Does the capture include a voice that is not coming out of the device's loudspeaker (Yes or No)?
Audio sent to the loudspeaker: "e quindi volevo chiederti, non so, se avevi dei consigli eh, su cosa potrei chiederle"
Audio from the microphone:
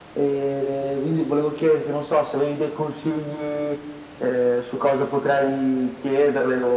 No